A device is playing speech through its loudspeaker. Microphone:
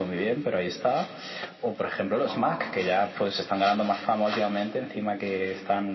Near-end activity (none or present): present